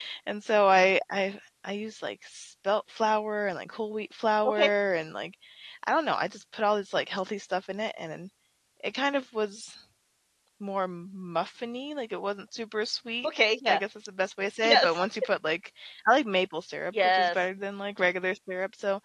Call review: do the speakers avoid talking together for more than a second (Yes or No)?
Yes